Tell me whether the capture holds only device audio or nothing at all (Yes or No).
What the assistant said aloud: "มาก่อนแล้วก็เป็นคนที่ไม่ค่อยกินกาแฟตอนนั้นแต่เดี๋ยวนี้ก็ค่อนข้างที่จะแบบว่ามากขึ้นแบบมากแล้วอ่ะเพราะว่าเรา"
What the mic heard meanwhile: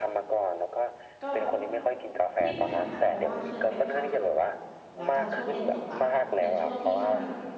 No